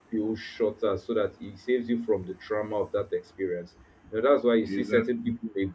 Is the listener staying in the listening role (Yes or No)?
Yes